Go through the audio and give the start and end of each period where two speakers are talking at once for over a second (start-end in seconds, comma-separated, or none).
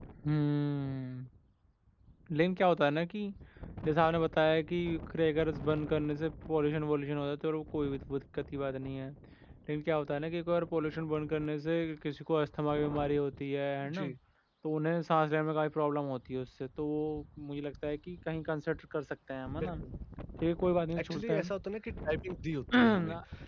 none